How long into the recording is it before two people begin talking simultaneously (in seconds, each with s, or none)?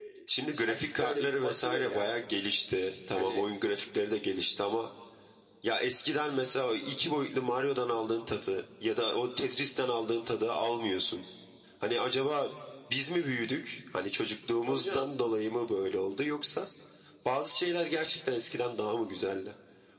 0.7 s